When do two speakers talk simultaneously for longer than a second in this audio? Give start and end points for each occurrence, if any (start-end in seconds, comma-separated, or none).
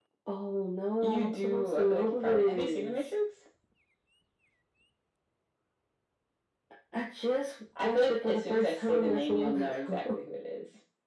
1.0-3.1, 7.8-10.2